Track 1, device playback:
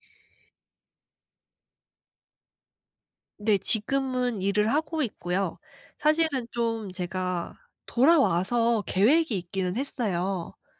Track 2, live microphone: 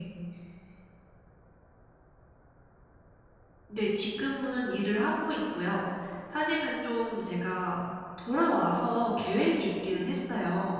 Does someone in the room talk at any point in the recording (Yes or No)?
No